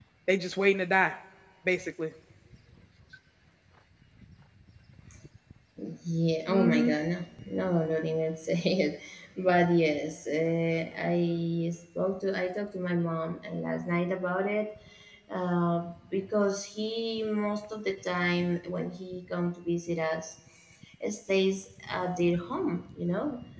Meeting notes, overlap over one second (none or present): none